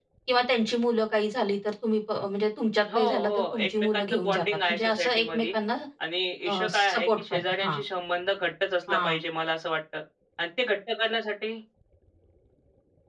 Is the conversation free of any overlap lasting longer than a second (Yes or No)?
No